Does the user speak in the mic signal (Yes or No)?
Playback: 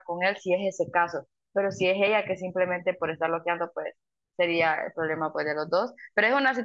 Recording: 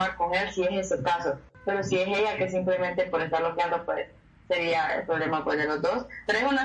No